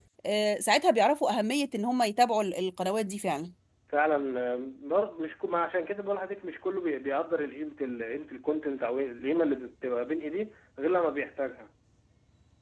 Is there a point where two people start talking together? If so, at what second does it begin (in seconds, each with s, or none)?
none